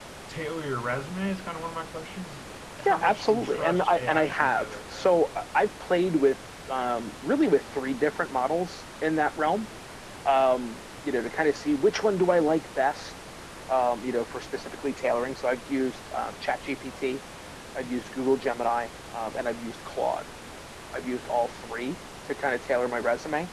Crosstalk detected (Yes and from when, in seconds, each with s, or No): Yes, from 2.8 s